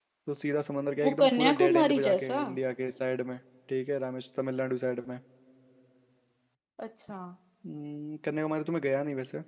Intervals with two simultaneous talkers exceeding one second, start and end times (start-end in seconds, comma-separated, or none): 1.0-2.4